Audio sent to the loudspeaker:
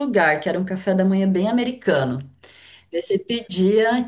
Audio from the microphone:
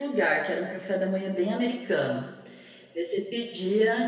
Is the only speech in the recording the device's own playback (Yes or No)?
Yes